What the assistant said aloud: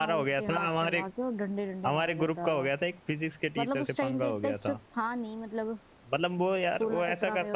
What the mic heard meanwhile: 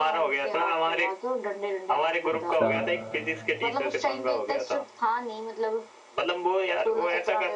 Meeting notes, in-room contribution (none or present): present